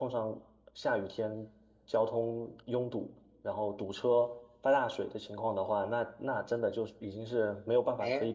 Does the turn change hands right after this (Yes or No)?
Yes